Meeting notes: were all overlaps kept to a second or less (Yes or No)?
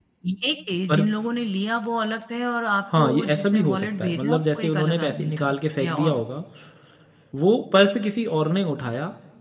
No